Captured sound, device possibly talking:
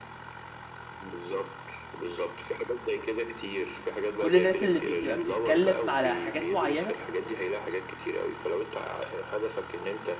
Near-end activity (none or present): present